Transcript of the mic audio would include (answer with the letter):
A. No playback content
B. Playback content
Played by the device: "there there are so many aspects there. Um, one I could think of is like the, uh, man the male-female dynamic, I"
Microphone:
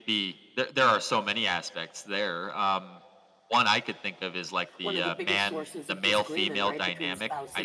B